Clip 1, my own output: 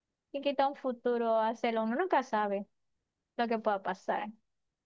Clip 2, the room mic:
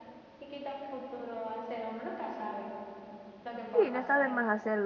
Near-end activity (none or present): present